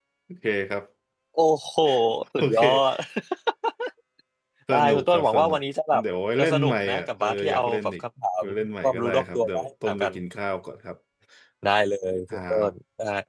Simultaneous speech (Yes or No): Yes